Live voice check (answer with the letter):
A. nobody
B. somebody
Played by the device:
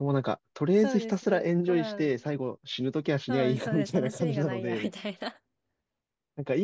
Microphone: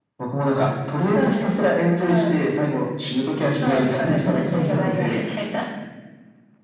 A